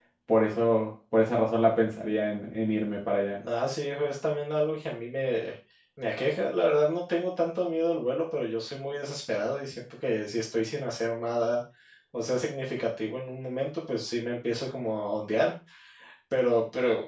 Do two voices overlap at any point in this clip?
No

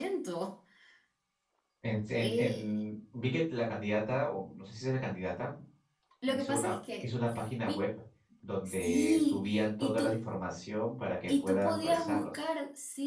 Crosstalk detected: Yes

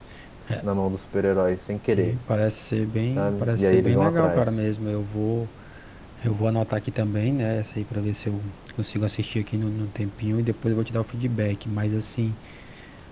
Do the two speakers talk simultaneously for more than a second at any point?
Yes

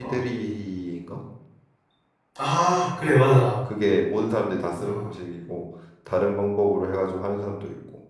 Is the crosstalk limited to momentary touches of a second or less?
Yes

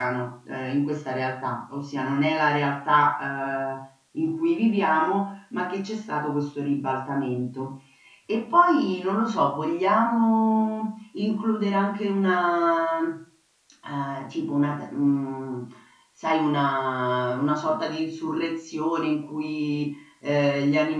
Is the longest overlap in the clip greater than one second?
No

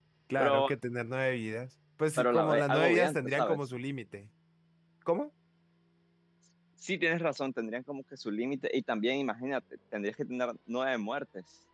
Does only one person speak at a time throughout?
No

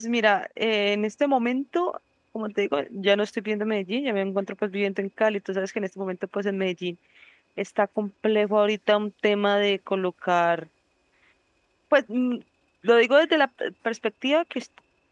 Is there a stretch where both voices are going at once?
No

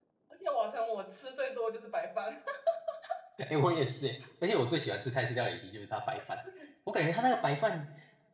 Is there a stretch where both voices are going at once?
No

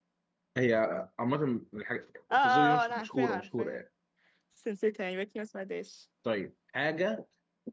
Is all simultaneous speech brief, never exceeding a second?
No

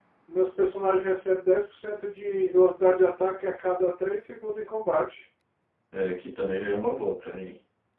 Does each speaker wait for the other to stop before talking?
Yes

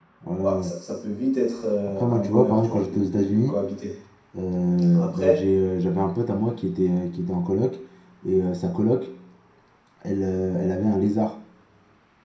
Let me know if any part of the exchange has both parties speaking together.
Yes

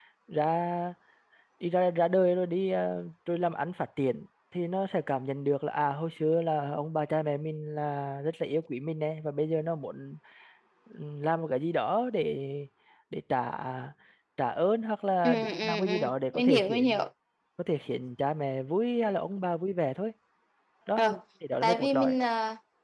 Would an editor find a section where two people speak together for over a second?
Yes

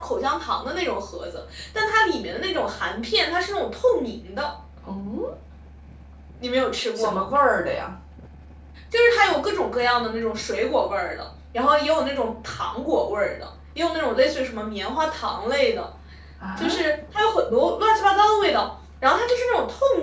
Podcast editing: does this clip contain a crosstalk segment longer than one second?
No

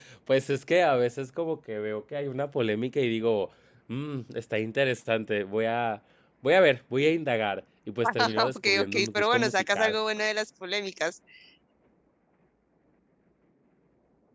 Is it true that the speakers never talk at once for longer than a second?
No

